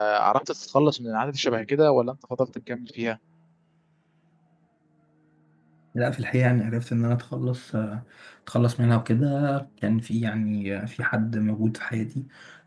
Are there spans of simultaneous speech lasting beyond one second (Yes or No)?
No